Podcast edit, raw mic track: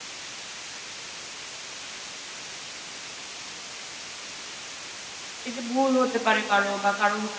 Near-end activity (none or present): present